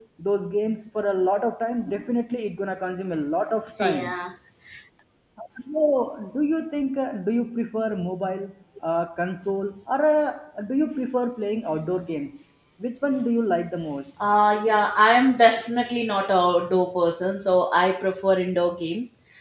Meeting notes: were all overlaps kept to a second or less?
Yes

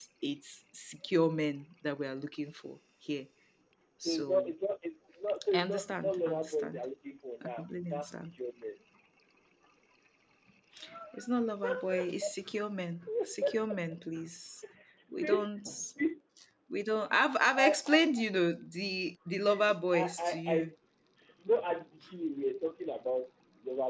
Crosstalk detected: Yes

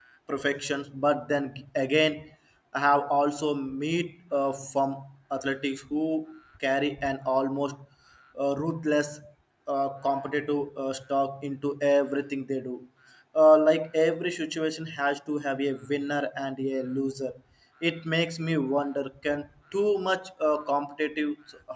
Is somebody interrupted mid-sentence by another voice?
No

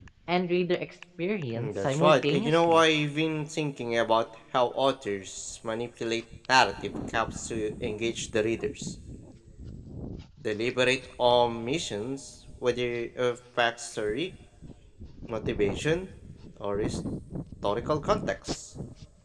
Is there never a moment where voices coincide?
No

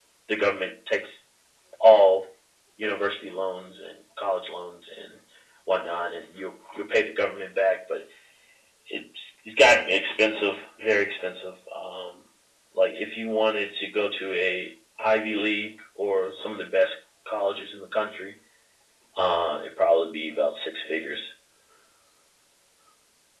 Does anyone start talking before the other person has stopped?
No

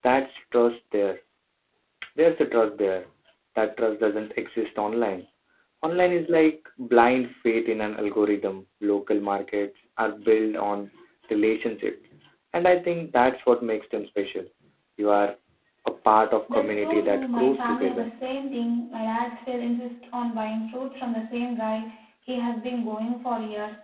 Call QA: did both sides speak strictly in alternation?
No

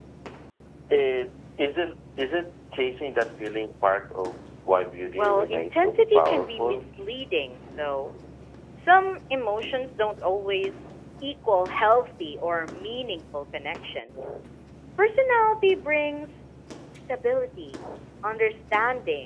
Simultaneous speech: Yes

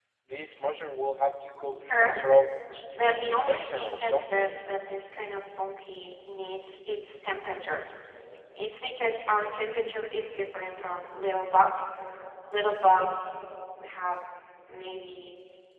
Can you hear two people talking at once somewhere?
Yes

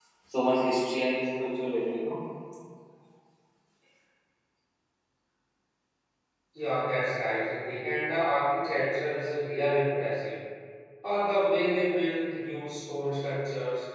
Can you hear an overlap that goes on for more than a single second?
No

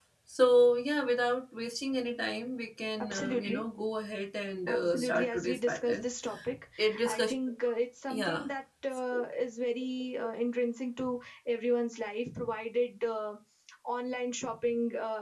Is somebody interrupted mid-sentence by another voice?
Yes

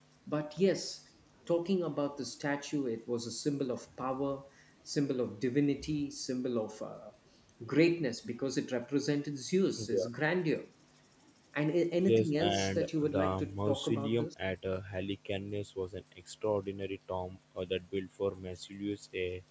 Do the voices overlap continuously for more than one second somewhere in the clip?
Yes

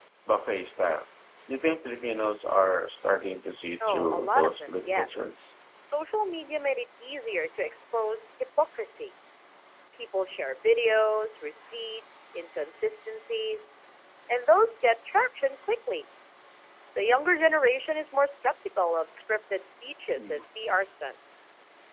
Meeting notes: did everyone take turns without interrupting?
No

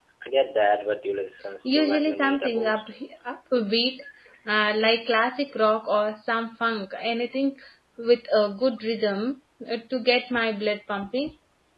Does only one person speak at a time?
No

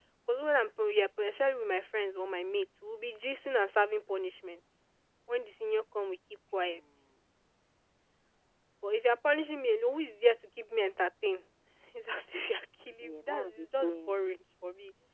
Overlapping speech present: Yes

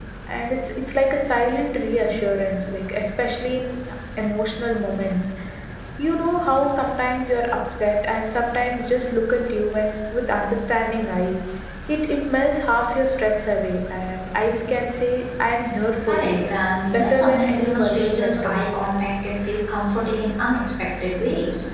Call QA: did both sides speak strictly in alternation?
No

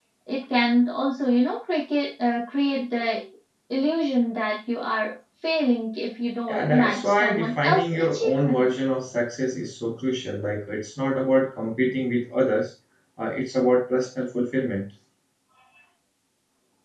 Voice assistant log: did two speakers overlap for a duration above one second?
Yes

